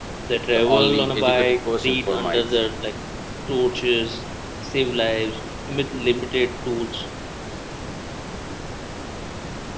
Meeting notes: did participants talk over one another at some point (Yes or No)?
Yes